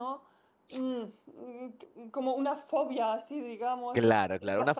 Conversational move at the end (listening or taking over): taking over